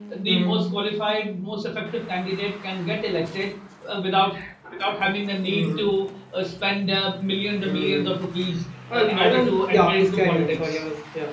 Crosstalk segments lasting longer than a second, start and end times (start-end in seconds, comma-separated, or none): 9.0-10.7